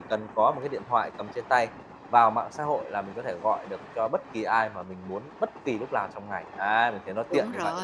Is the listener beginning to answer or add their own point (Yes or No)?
Yes